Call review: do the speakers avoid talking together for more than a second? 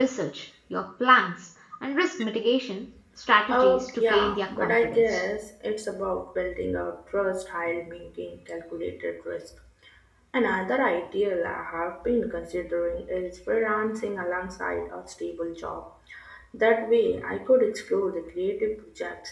No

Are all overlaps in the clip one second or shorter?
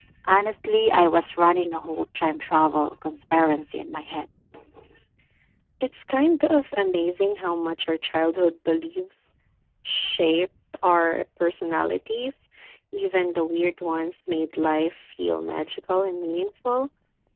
Yes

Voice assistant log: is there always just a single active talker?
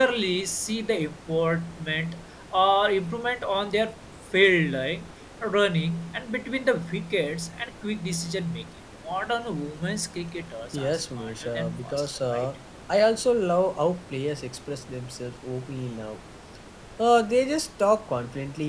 No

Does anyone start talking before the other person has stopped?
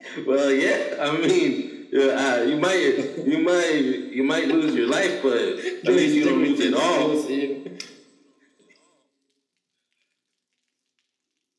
Yes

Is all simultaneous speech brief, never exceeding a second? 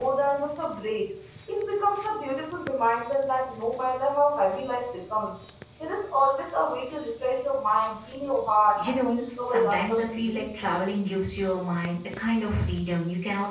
No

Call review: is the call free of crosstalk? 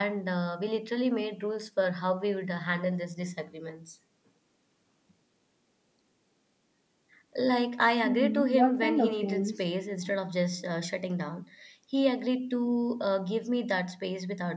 No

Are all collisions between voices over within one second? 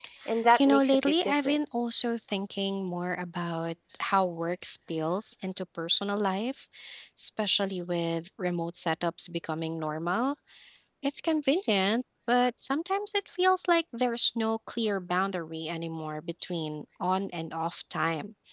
No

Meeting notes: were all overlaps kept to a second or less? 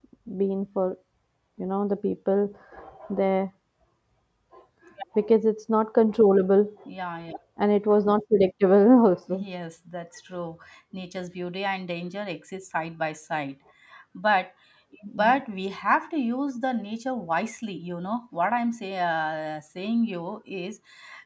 Yes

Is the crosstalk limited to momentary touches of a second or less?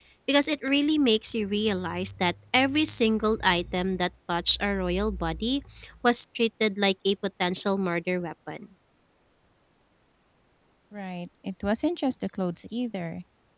Yes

